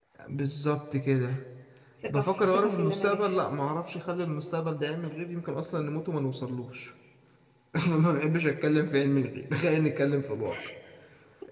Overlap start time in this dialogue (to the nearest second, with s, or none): 2 s